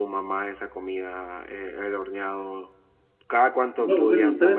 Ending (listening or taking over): taking over